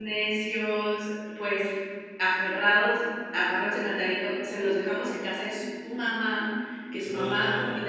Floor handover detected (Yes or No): No